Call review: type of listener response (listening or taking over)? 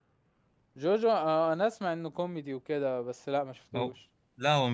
taking over